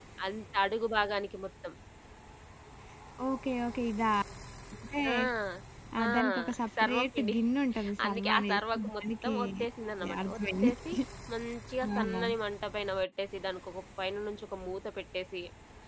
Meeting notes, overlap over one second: present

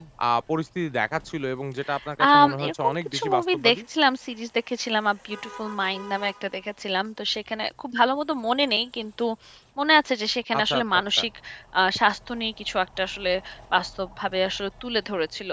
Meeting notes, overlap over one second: present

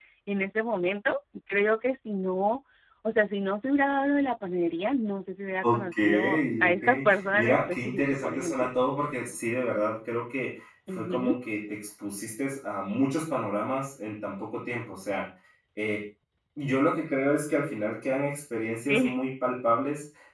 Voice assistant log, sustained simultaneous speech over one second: present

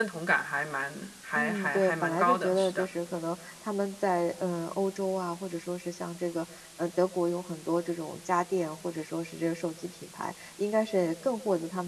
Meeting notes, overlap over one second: present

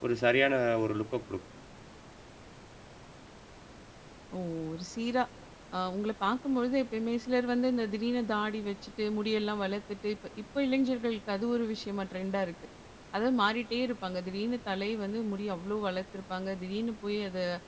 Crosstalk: none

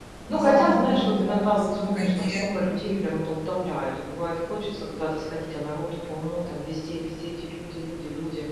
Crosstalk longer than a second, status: present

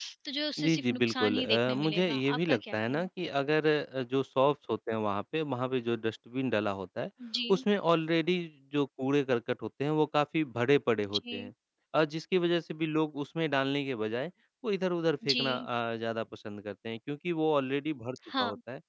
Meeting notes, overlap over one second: present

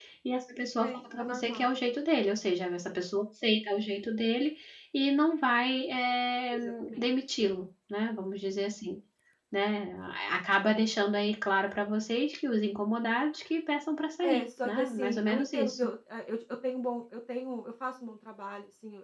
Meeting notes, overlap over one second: present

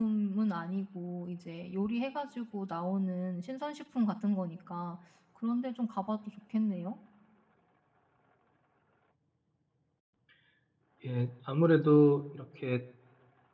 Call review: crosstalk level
none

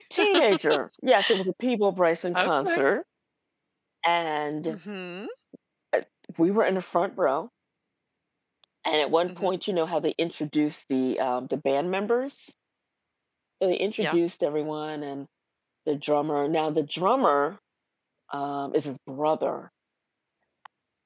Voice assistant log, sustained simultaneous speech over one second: none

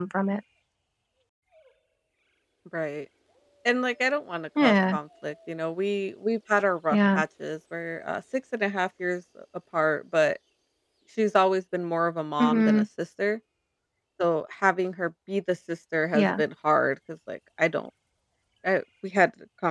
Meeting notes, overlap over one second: none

